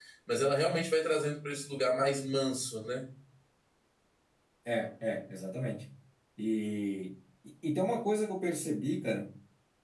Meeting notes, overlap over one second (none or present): none